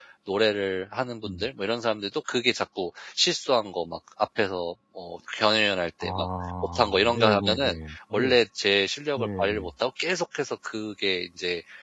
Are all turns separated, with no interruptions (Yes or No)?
No